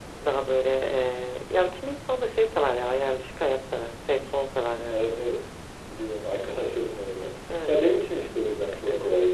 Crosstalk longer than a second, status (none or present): none